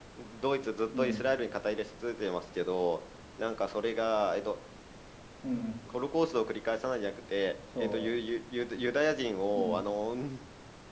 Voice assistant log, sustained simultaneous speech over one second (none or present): none